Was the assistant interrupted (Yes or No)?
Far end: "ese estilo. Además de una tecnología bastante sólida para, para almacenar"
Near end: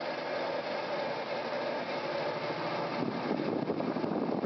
No